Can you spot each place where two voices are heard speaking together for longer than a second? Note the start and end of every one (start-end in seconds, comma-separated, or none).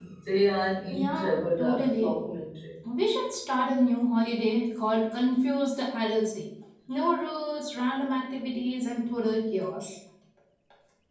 0.9-2.2